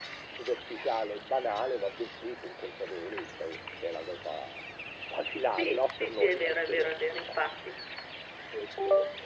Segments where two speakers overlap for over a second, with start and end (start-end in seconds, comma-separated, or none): 5.5-6.9